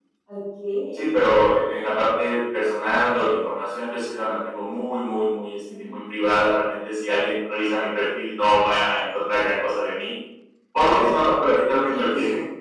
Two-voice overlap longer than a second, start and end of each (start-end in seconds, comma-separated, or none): none